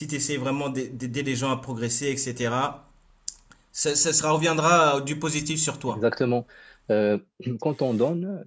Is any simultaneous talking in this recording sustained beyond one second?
No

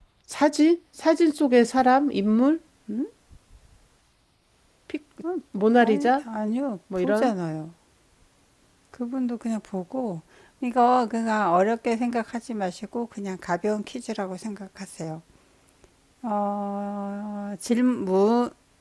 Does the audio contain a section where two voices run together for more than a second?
No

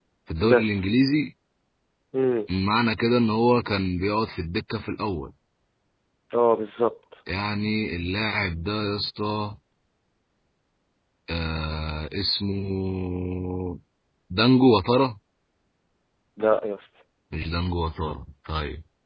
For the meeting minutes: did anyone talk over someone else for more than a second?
No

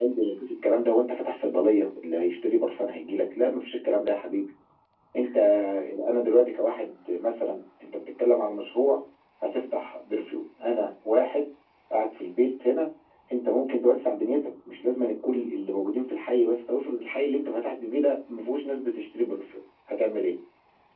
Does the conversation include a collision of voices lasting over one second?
No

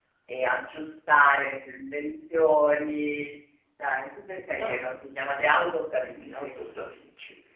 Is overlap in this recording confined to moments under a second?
Yes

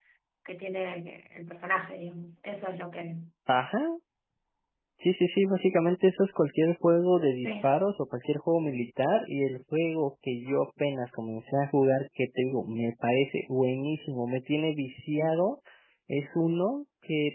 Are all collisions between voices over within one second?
Yes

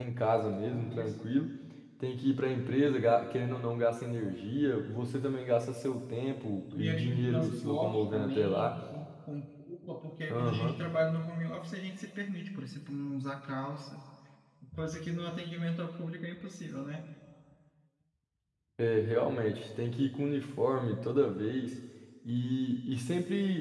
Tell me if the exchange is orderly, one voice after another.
No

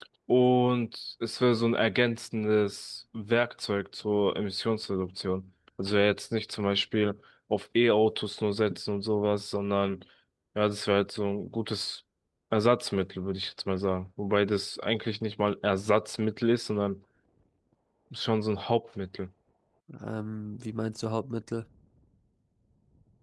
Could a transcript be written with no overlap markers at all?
Yes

